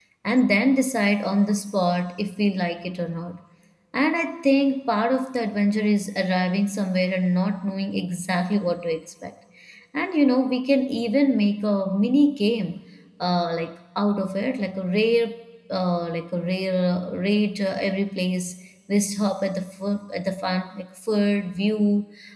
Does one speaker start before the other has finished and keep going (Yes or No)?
No